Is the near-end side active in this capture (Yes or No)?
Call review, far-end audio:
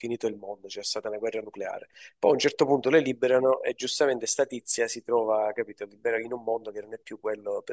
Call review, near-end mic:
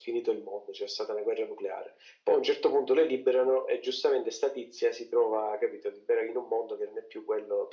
No